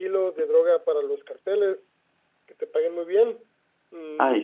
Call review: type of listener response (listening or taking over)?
listening